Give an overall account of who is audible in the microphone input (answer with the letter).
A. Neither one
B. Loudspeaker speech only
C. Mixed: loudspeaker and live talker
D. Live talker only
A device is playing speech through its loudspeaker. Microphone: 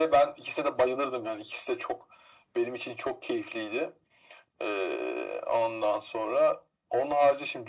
B